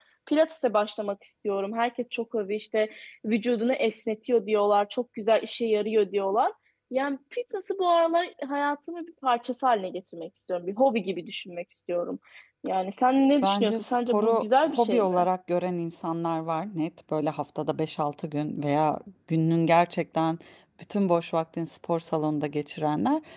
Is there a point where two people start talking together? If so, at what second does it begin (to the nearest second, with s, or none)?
13 s